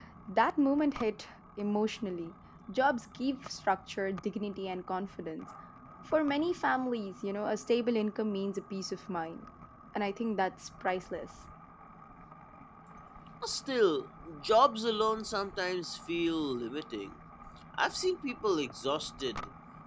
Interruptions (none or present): none